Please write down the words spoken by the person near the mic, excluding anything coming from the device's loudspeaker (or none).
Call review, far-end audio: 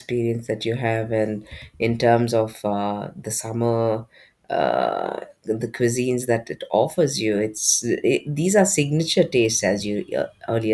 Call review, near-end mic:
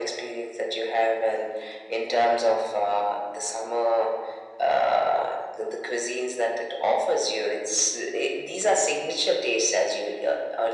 none